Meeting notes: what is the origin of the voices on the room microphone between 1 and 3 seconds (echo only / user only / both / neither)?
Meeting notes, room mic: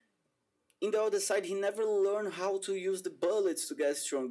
echo only